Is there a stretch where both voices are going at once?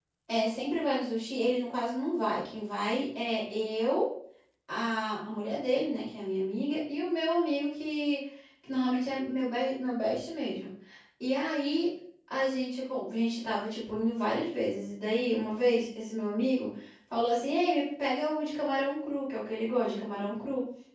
No

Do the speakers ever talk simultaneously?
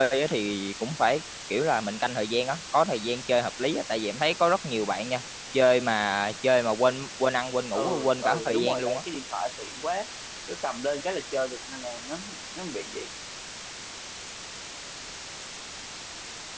Yes, from 7.7 s

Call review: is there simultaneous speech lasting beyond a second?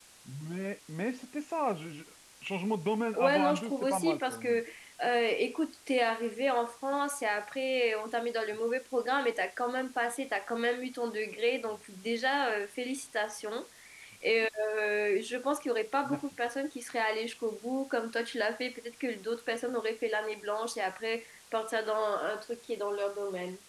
Yes, from 3.2 s

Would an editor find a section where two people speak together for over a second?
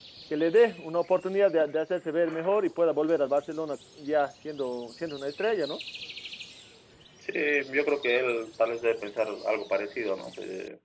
No

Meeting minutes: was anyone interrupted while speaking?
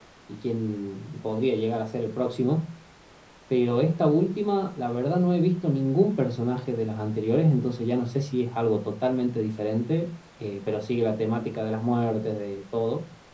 No

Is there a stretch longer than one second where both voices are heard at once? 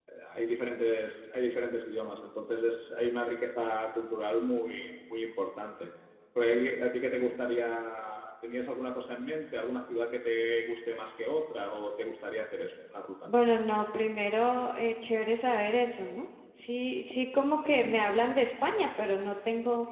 No

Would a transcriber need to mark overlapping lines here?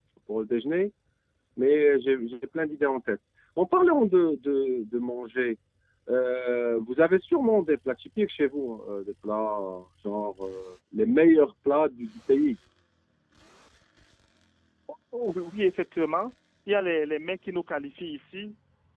No

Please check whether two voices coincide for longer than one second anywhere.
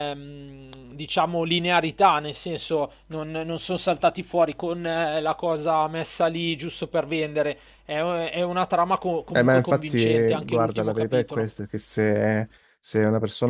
Yes, from 9.3 s

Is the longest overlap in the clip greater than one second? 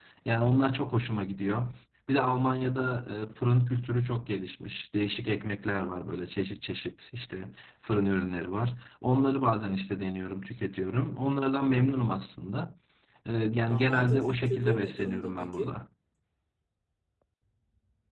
Yes, from 13.7 s

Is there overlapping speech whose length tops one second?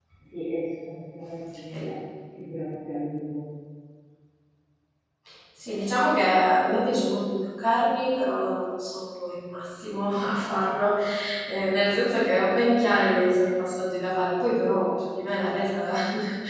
No

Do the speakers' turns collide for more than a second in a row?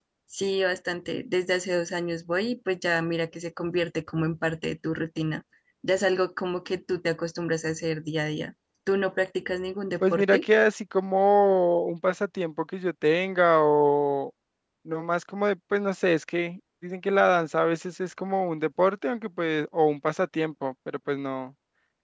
No

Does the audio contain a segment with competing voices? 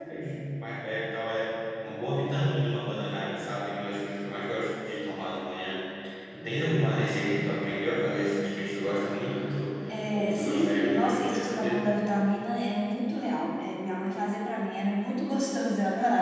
Yes, from 9.9 s

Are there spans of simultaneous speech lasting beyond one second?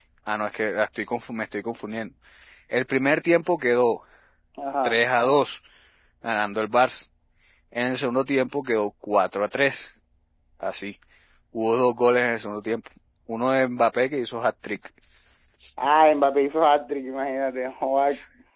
No

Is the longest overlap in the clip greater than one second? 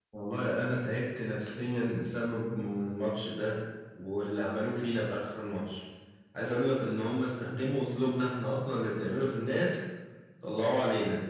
No

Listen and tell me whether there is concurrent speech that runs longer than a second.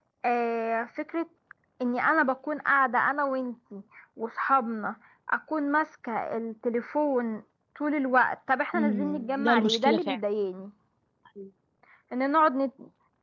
Yes, from 8.7 s

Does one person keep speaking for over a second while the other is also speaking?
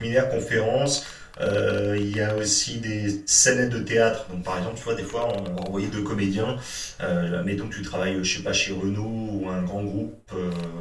No

